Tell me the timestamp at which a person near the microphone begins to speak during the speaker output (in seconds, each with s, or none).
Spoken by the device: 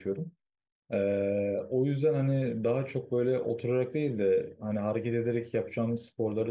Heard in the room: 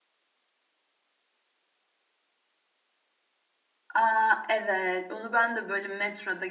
3.9 s